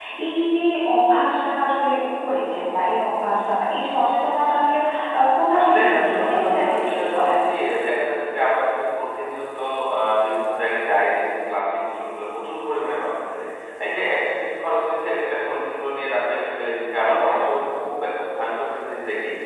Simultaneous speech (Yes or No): Yes